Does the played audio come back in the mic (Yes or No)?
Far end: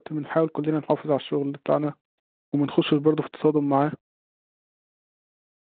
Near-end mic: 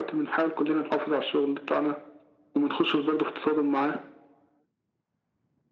Yes